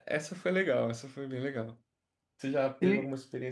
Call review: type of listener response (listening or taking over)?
listening